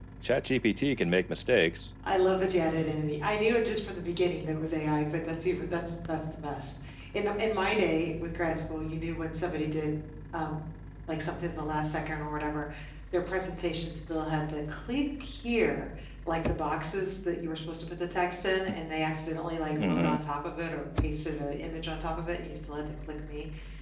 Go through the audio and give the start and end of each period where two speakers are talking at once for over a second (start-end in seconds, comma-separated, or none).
none